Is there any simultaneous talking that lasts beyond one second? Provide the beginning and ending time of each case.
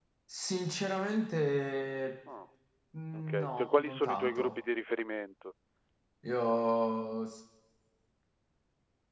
3.1-4.6

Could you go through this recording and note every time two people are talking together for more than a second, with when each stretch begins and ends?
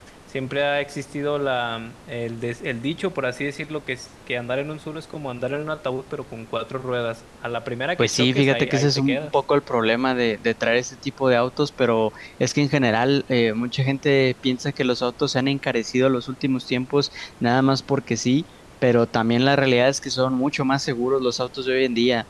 8.0-9.3

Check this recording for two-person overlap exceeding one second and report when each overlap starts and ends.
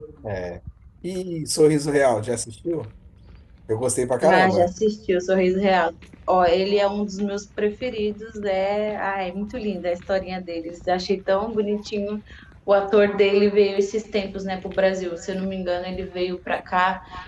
none

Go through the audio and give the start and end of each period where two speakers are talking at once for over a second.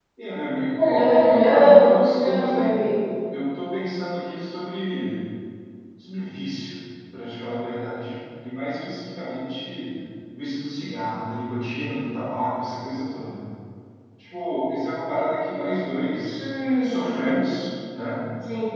0.8-2.8

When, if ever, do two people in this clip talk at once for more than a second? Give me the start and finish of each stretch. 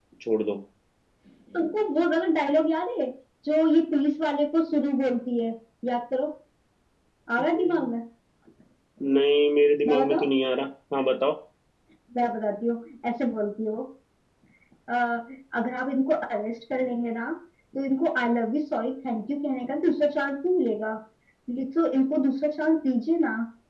none

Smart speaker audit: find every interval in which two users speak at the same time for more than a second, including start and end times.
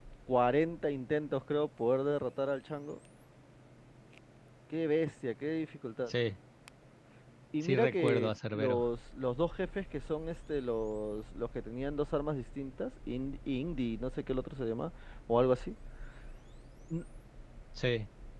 7.6-8.8

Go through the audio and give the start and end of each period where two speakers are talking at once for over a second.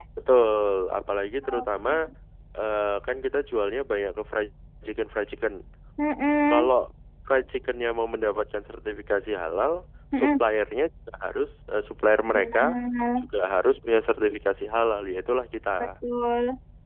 none

